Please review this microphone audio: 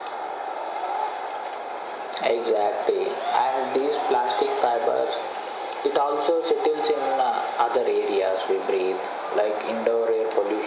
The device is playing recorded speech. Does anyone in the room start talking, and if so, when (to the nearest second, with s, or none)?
none